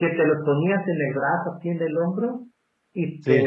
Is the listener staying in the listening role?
Yes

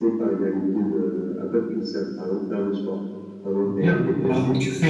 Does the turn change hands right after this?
Yes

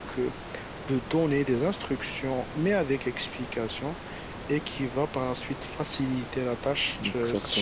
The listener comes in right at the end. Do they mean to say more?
No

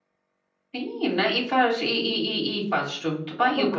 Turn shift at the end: Yes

